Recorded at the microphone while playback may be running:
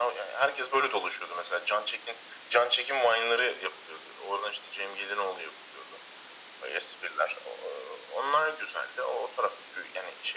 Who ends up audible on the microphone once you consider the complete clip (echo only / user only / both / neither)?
echo only